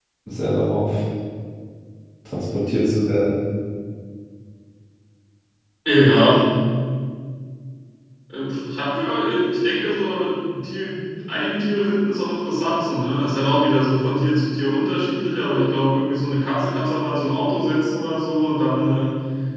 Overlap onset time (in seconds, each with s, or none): none